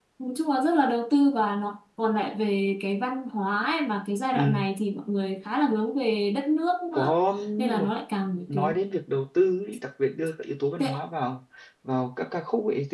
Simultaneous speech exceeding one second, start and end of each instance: none

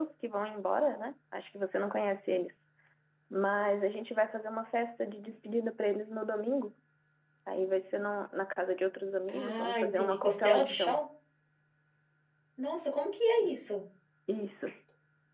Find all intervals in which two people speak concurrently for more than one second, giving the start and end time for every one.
9.3-11.0

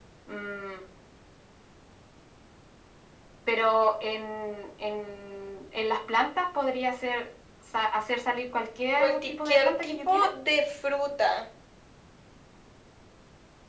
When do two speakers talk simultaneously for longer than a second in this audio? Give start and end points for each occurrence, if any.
9.0-10.2

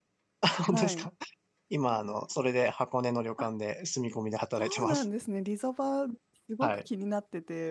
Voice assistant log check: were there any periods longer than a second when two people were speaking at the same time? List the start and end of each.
none

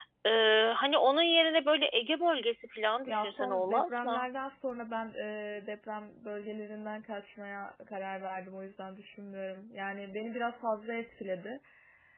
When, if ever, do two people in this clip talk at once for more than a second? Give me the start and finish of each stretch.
3.1-4.3

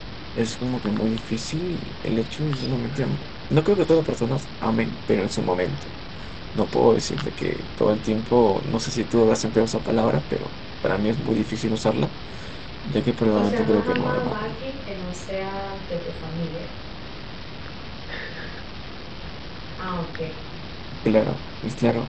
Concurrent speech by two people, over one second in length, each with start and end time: 13.3-14.6

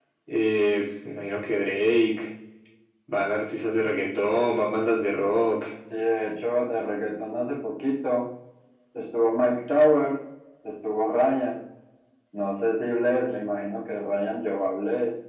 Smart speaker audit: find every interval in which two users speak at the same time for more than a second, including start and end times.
none

